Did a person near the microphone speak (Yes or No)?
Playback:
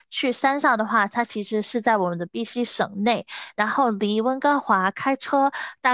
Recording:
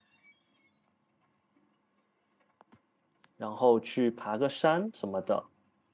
Yes